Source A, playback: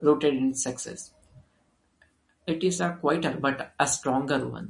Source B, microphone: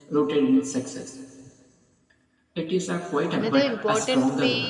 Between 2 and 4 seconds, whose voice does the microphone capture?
both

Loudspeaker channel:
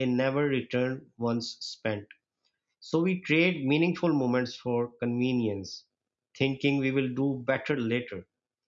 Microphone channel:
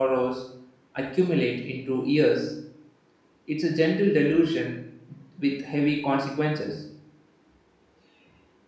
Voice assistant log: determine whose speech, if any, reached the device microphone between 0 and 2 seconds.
user only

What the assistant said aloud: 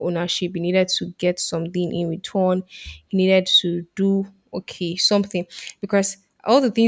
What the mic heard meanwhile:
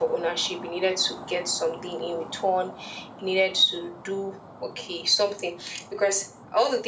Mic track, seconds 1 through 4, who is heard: echo only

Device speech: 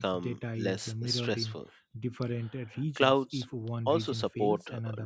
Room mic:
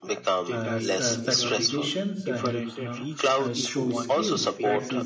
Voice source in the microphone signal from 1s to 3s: both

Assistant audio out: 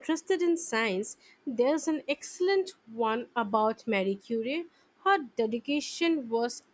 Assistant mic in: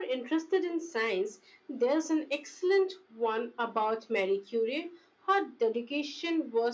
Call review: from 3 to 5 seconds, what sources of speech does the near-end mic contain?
echo only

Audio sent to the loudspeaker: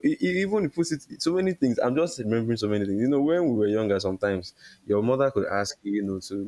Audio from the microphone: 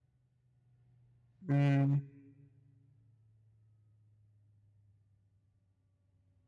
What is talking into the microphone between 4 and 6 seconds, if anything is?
neither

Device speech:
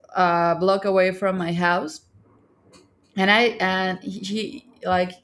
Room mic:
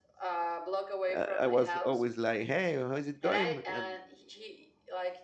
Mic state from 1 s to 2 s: both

